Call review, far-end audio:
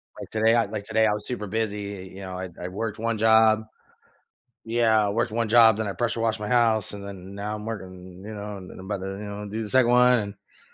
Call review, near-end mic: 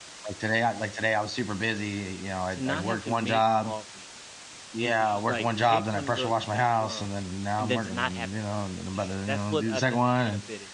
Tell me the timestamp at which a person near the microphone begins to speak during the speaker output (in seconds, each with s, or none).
2.5 s